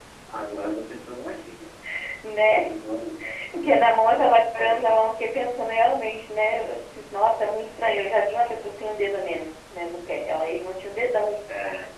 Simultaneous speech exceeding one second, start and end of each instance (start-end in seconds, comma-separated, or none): none